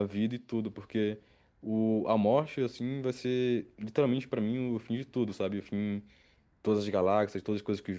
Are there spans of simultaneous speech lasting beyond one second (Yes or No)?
No